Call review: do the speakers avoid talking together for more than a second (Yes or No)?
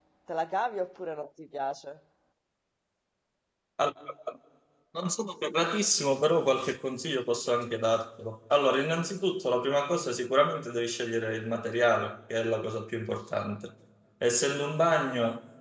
Yes